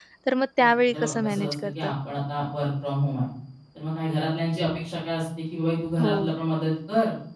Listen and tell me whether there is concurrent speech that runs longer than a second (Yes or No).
Yes